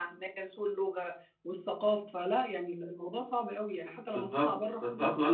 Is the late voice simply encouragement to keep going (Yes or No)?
No